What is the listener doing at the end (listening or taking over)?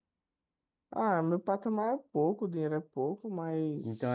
taking over